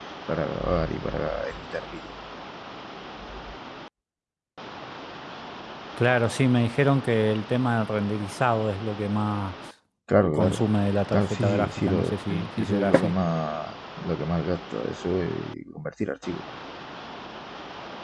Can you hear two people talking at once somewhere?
Yes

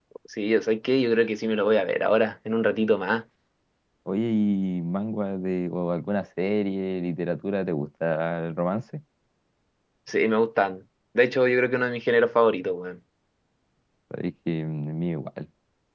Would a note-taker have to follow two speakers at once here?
No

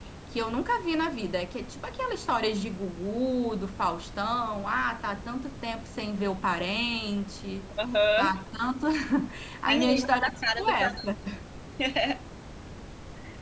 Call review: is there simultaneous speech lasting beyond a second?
Yes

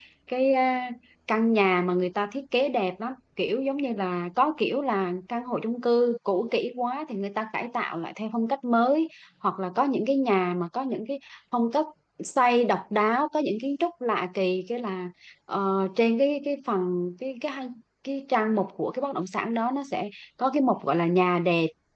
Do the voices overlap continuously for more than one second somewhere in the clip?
No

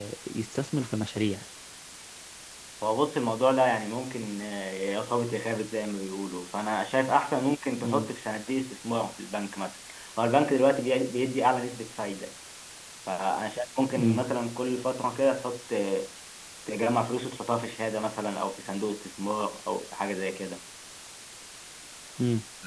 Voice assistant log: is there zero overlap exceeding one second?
Yes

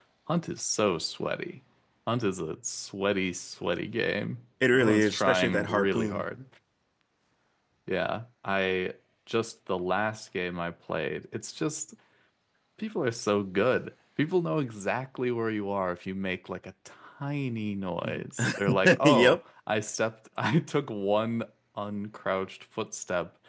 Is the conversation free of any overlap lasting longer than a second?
No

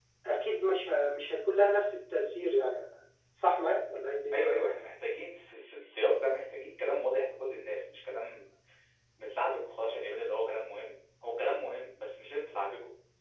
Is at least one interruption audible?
No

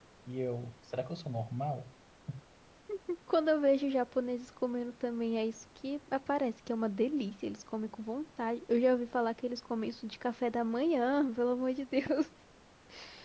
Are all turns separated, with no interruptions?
Yes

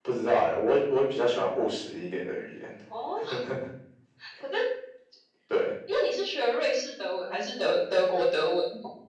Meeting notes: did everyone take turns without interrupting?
Yes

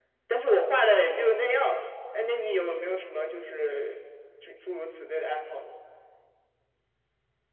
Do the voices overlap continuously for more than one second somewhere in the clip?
No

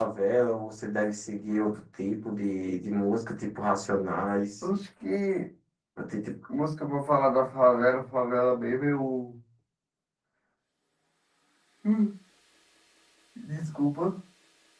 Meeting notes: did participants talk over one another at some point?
No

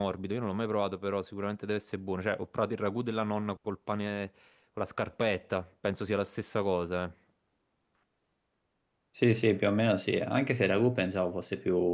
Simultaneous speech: No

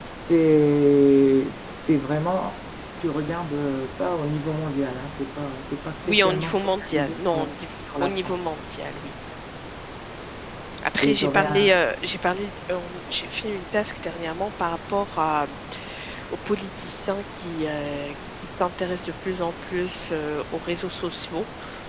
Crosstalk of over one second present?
Yes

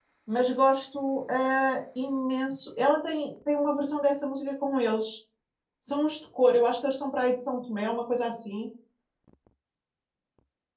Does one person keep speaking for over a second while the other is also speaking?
No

